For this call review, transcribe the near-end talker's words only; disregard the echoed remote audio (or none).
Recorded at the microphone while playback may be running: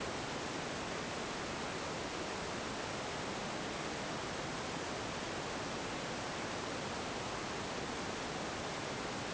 none